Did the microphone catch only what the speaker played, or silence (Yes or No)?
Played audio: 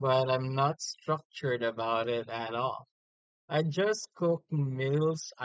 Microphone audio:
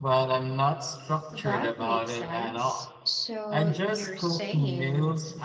No